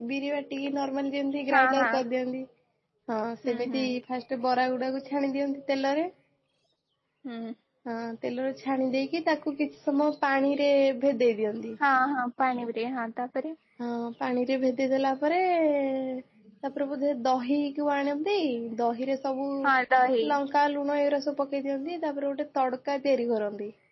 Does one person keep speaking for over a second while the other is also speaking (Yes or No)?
No